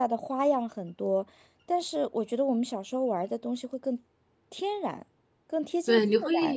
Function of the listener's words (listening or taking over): taking over